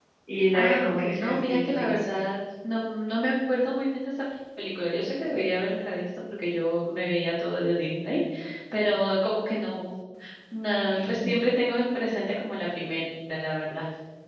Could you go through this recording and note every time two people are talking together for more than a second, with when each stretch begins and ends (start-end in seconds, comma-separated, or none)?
0.5-2.0